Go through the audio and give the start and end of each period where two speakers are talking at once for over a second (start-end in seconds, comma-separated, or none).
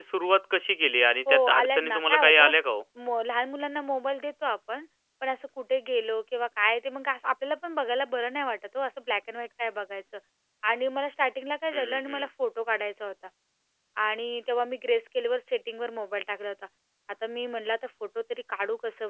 1.3-2.5